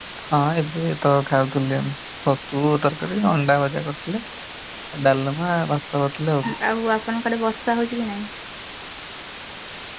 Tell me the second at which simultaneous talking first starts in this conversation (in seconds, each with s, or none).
none